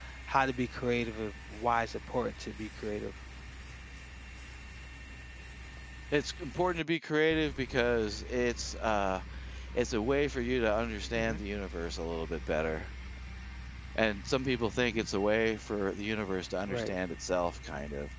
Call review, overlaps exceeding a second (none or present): none